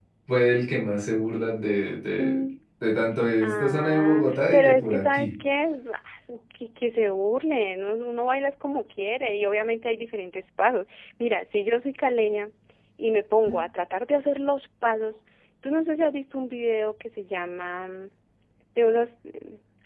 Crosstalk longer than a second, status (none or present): present